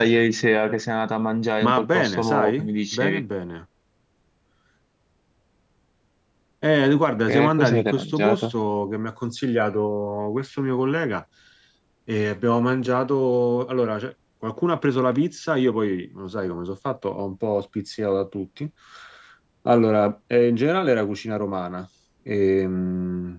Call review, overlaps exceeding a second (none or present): present